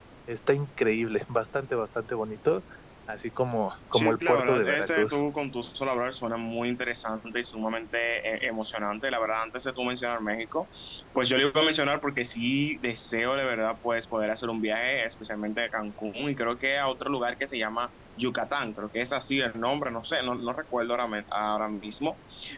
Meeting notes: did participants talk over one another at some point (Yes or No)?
Yes